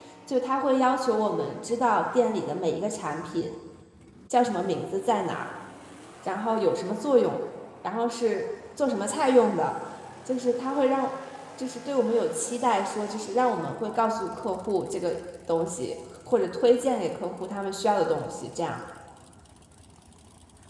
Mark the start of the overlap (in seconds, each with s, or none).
none